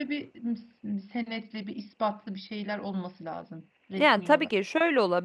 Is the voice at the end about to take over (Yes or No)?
Yes